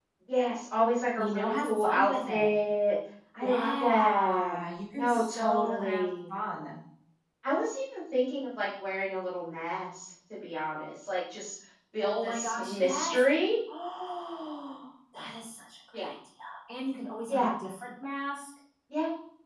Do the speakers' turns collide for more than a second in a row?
Yes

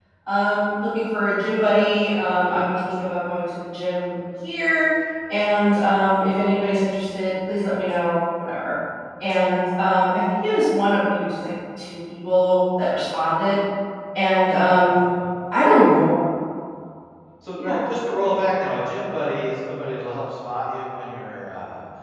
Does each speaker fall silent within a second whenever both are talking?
Yes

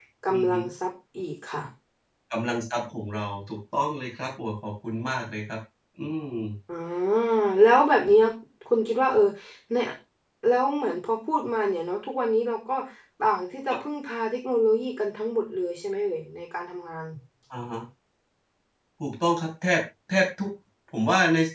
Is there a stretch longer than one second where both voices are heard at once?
No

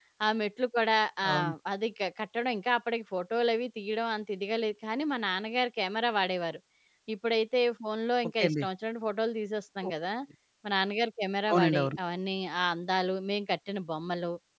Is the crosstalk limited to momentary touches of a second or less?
Yes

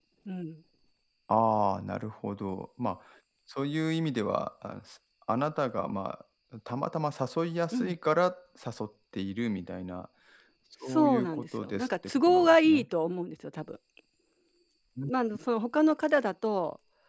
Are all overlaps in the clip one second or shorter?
No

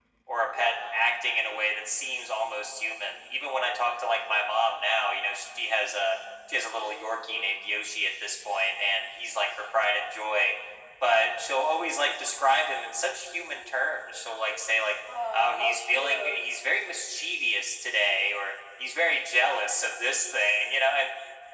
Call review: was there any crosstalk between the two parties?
Yes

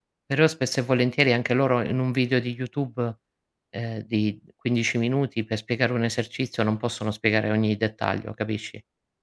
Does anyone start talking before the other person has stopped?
No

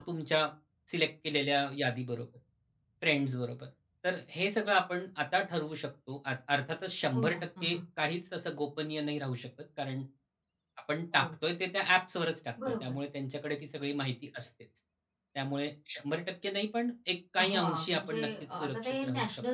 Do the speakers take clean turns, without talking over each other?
No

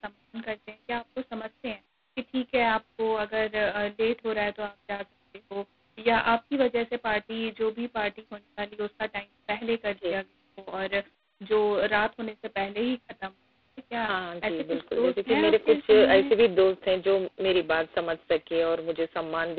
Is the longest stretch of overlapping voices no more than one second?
No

